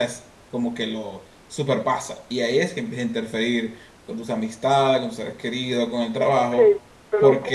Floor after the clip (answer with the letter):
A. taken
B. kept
A